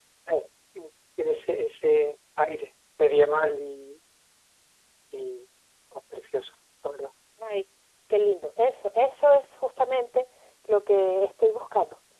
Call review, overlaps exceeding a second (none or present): none